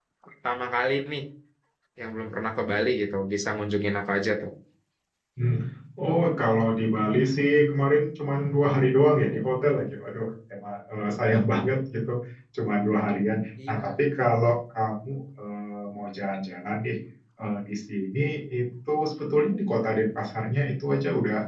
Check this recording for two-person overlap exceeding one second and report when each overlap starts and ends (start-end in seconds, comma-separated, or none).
none